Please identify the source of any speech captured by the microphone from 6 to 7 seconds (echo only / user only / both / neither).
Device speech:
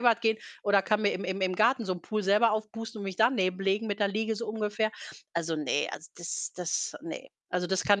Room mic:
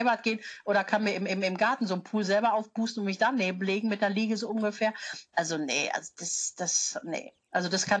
echo only